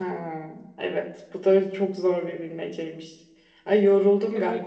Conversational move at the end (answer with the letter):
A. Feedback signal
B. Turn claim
A